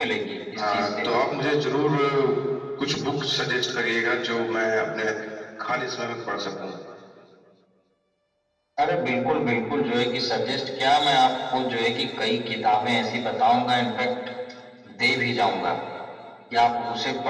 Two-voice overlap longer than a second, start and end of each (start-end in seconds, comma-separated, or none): none